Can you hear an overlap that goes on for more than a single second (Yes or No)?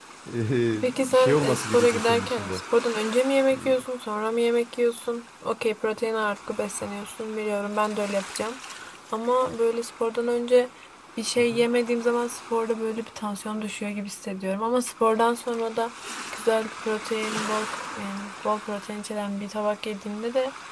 Yes